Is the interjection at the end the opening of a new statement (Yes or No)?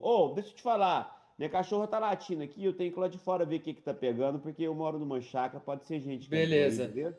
Yes